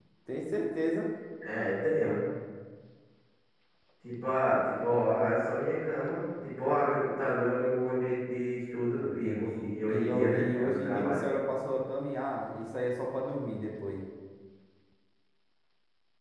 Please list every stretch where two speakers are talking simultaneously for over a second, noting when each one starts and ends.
9.0-11.2

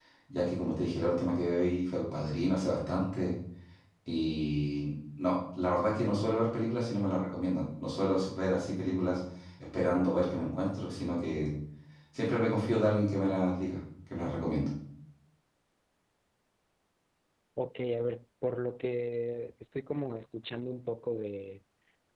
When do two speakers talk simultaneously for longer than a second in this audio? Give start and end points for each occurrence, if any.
none

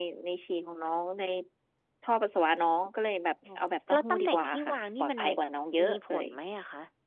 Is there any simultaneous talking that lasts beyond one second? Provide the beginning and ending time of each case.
3.9-5.2

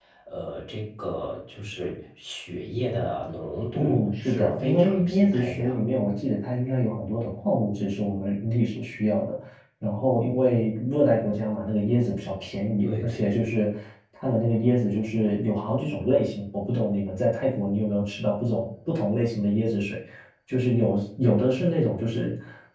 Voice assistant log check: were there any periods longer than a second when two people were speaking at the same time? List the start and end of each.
3.8-5.8

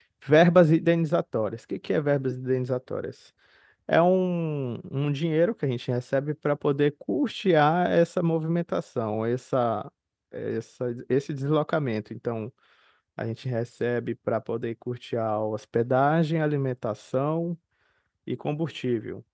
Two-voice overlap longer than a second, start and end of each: none

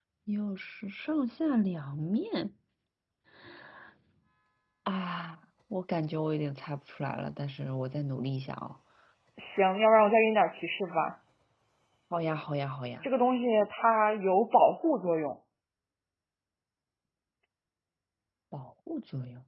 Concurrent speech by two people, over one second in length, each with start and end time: none

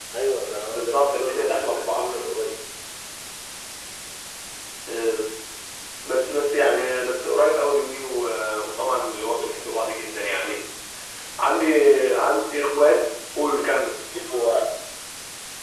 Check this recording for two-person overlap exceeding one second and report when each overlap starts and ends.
0.7-2.0

